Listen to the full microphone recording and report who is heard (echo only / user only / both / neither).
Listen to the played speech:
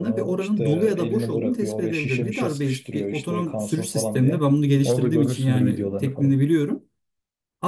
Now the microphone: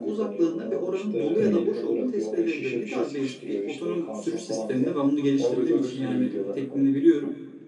both